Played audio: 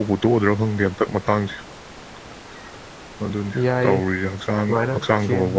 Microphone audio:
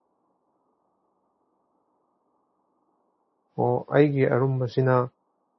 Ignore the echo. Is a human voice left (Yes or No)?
Yes